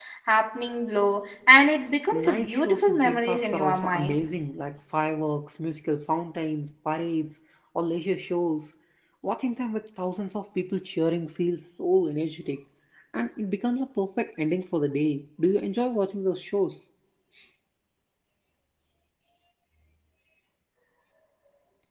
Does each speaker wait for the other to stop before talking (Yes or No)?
No